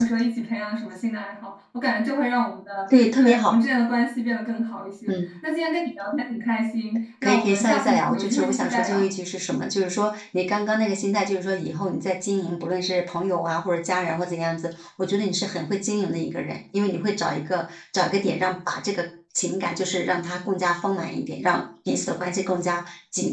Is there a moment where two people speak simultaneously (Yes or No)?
Yes